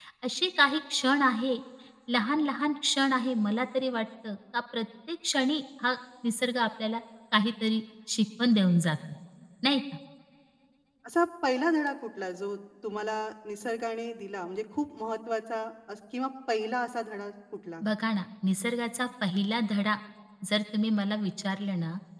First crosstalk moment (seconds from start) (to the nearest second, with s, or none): none